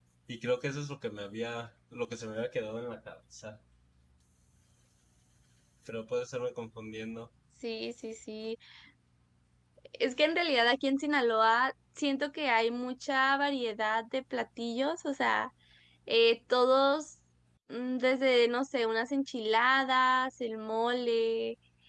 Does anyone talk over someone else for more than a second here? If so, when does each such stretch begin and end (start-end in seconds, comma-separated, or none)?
none